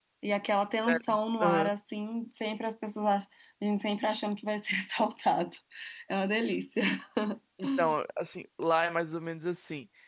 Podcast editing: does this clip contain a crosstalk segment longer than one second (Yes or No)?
No